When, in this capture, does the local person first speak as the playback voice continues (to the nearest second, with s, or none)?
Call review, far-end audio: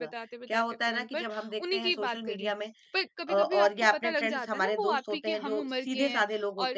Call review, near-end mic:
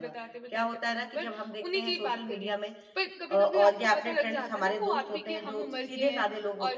none